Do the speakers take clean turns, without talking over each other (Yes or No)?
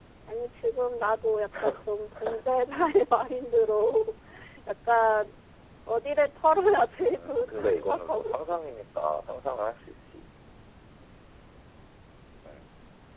No